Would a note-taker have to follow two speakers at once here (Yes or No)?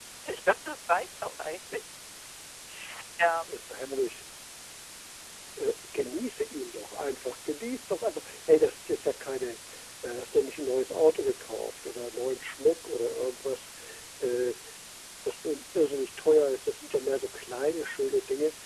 No